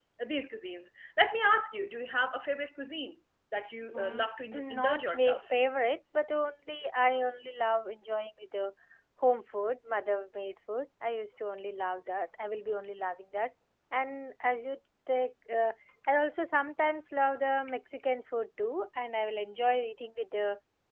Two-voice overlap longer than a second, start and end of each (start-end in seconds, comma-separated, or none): 3.9-5.6